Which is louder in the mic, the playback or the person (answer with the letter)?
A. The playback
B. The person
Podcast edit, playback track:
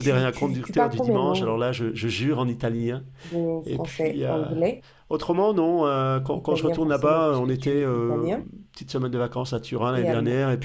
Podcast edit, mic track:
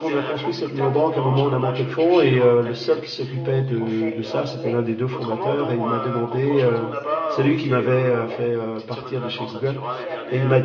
B